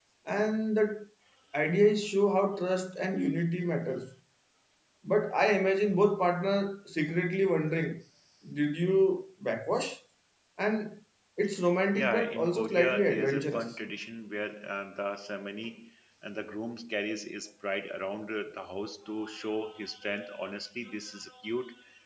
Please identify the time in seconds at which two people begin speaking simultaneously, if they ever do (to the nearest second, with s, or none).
12 s